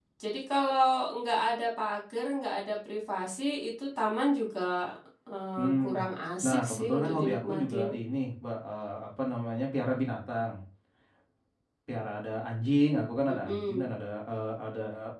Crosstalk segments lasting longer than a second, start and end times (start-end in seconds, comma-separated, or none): 6.4-7.9